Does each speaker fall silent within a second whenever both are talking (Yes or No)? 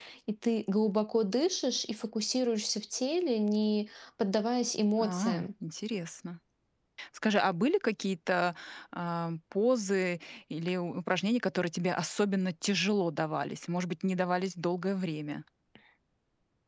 Yes